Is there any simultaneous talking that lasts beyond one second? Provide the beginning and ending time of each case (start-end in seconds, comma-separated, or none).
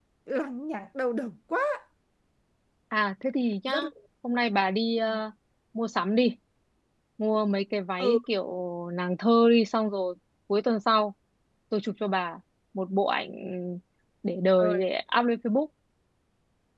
none